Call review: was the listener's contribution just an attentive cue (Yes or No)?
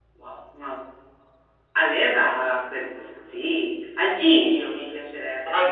No